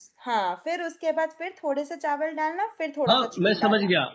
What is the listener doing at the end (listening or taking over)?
taking over